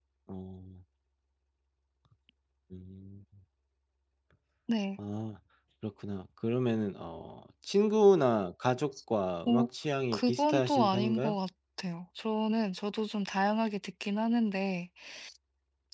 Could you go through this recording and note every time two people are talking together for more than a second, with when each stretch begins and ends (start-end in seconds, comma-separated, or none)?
10.1-11.4